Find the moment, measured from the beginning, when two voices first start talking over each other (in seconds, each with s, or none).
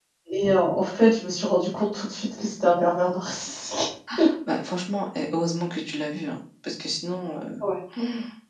none